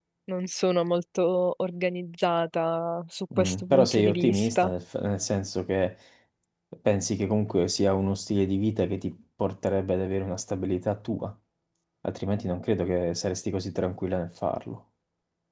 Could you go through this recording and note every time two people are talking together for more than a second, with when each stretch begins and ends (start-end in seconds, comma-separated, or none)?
3.4-4.7